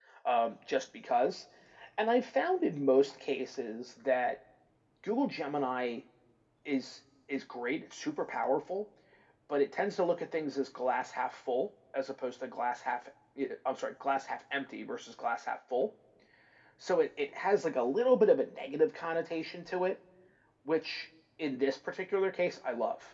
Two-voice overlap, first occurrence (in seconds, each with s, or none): none